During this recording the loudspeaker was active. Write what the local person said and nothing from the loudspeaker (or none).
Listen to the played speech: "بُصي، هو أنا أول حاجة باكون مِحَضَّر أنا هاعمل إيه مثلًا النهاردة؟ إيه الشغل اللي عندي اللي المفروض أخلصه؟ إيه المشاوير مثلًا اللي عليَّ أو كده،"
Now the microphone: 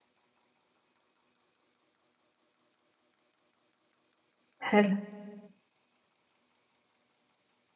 حلو.